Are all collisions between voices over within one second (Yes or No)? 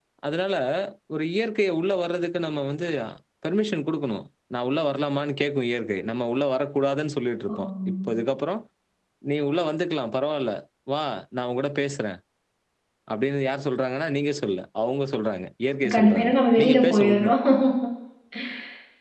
No